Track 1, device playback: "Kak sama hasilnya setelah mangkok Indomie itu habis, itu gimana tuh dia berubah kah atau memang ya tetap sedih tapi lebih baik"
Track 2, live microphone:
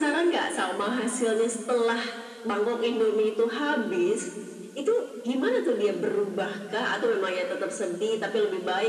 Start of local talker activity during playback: none

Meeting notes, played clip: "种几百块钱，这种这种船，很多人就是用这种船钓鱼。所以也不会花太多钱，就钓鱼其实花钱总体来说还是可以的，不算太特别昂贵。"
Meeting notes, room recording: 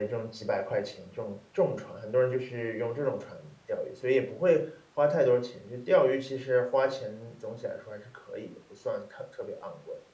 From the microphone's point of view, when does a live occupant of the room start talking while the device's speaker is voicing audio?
none

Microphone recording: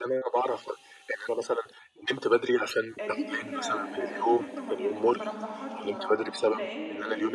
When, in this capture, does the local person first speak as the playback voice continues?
3.0 s

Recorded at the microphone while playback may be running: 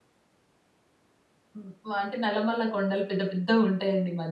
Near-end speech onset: 1.6 s

